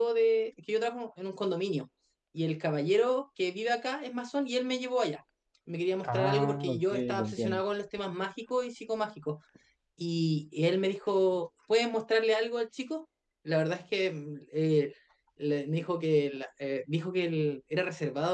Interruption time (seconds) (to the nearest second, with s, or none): 6 s